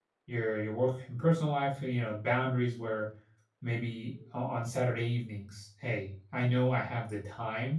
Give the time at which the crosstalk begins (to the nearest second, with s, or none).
none